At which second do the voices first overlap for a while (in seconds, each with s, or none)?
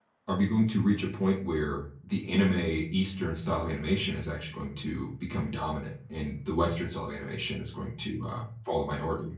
none